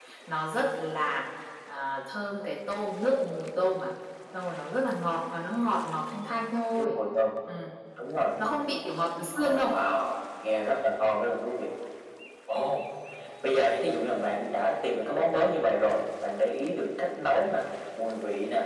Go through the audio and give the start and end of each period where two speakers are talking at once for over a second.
none

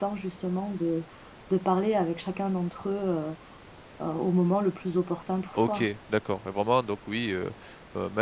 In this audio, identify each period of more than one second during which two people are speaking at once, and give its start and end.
none

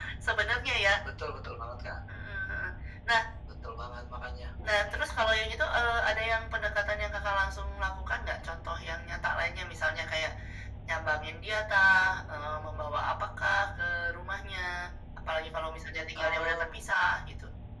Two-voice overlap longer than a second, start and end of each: none

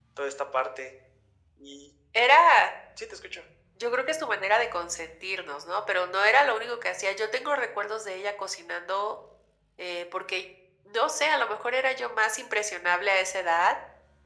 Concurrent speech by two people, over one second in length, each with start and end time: none

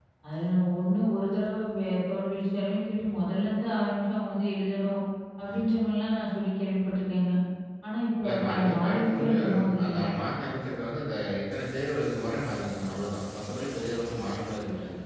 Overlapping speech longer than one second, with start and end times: 8.2-10.1

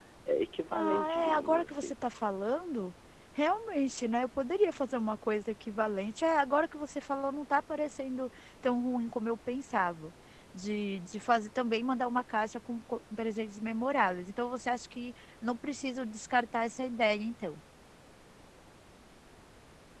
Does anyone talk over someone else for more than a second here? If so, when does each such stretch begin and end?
0.7-2.0

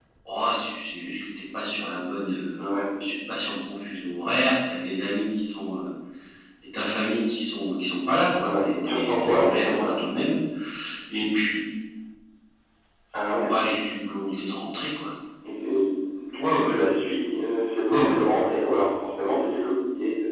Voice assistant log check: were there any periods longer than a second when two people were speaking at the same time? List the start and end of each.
8.4-9.9

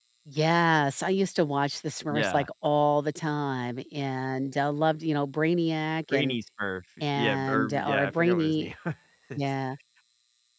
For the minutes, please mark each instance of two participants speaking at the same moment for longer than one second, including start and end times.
7.2-8.7

